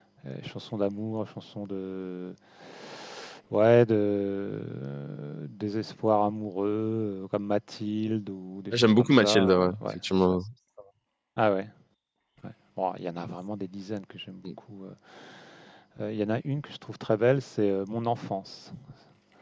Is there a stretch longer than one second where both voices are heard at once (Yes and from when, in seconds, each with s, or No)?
Yes, from 8.7 s